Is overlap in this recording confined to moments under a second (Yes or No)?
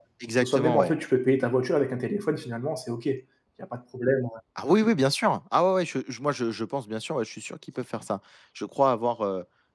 Yes